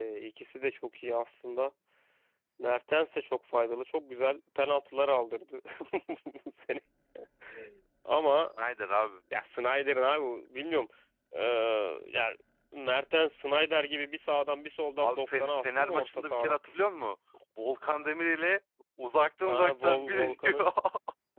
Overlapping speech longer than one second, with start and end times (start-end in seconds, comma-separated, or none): 15.0-16.6, 19.4-20.6